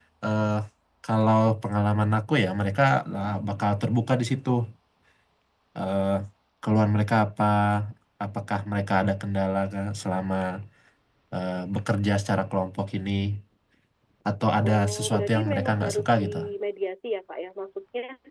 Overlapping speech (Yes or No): Yes